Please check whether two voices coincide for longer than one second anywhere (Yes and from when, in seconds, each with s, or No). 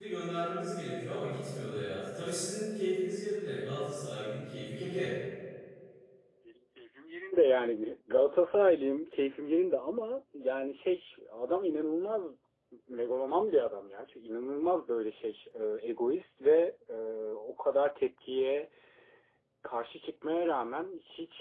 No